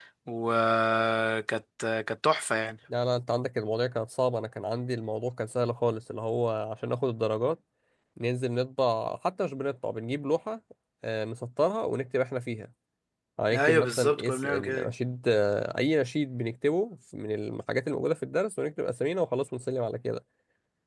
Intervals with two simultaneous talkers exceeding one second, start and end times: 13.5-14.9

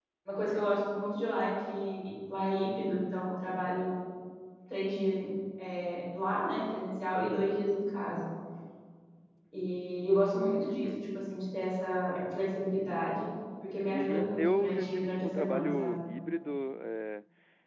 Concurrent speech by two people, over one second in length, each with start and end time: 13.9-15.9

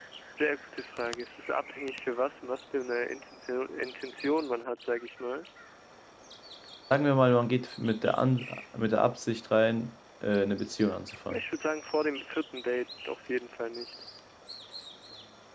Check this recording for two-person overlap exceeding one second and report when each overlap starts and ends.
none

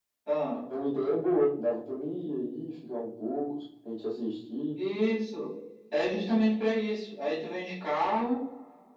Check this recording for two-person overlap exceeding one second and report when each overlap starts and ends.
none

